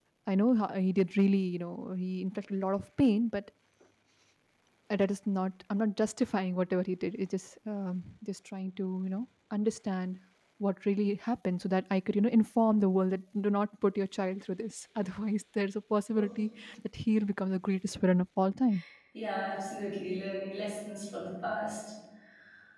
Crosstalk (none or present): none